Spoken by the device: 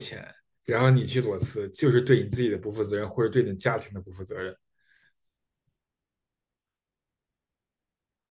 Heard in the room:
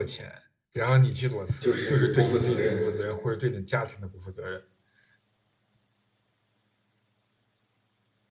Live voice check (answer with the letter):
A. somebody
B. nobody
A